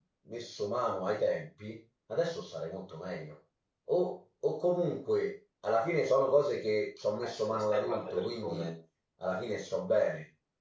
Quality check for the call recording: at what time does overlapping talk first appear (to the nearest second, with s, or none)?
7 s